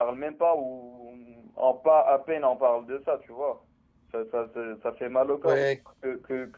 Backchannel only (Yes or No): Yes